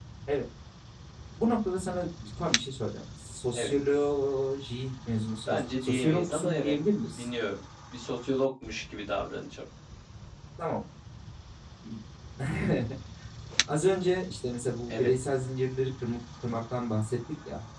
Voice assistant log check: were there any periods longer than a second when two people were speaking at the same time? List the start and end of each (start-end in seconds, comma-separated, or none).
5.5-6.8